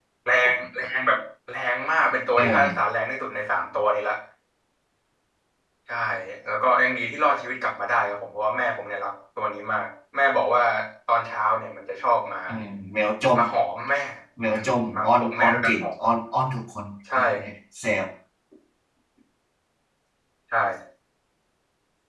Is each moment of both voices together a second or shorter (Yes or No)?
No